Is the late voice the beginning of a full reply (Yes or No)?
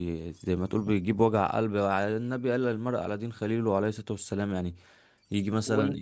No